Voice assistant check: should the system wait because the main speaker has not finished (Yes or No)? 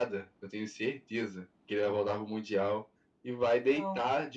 Yes